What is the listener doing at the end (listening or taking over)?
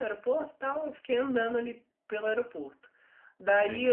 listening